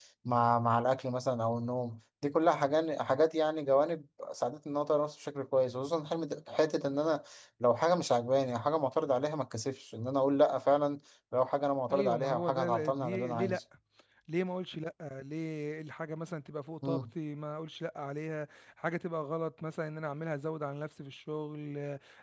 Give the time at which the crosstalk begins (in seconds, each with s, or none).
11.9 s